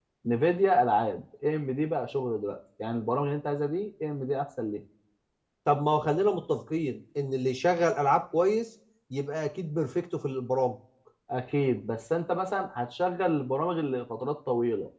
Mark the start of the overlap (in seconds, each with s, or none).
none